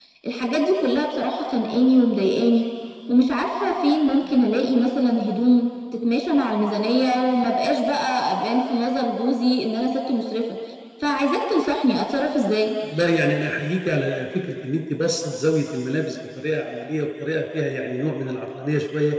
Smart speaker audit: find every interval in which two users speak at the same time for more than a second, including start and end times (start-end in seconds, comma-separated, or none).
none